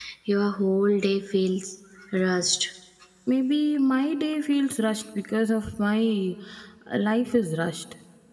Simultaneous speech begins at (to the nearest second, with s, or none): none